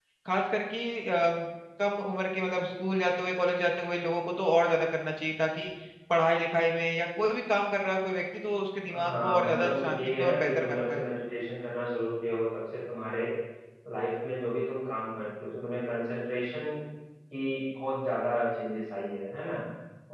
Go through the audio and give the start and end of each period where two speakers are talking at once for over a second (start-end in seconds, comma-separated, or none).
9.1-11.0